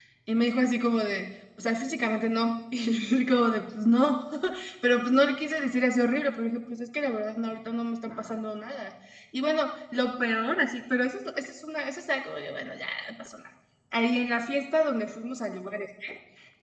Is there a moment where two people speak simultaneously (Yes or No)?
No